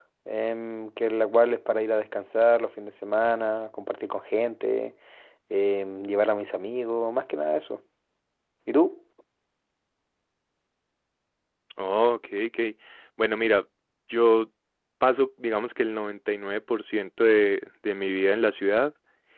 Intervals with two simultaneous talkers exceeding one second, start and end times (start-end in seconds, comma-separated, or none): none